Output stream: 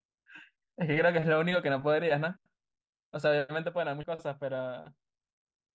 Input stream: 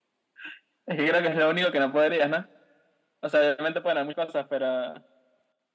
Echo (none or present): present